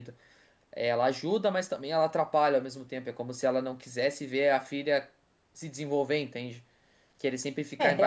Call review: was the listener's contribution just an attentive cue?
No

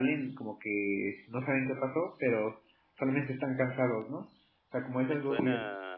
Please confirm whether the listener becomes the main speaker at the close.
Yes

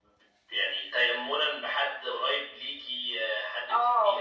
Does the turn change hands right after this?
Yes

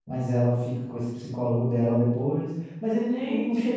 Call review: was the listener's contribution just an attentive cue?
Yes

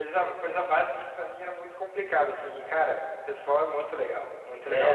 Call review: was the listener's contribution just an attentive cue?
No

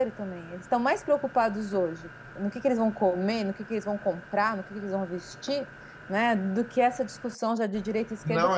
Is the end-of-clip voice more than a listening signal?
Yes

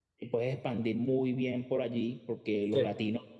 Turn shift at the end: No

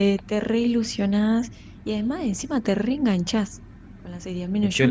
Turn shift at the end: No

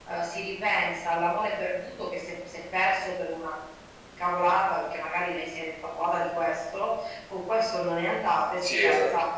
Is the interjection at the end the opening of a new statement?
No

